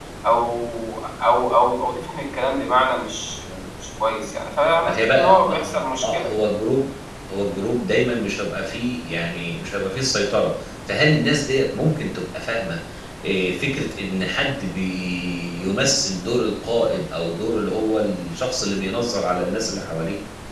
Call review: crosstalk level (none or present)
present